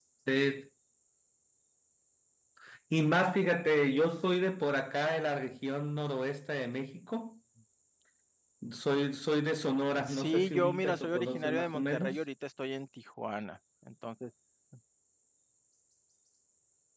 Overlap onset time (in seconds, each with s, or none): 9.9 s